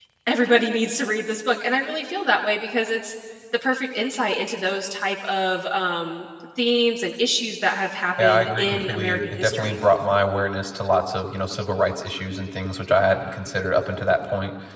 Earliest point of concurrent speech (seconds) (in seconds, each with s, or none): 8.2 s